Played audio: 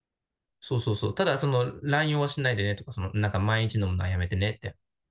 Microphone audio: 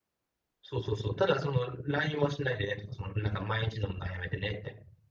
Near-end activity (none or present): none